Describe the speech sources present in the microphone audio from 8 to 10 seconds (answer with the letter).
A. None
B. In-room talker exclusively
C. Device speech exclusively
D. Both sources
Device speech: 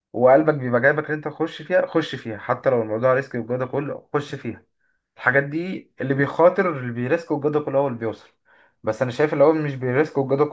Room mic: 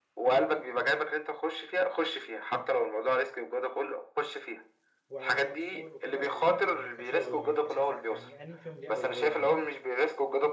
D